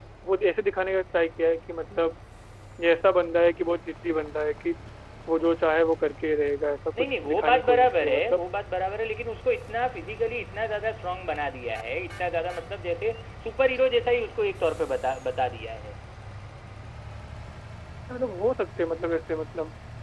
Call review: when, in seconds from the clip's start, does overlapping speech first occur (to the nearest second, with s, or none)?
7 s